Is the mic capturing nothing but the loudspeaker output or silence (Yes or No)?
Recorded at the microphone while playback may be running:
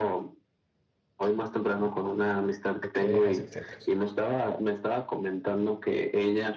No